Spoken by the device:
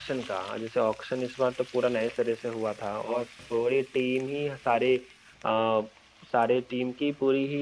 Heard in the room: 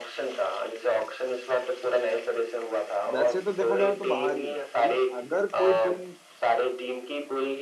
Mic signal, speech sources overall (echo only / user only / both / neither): both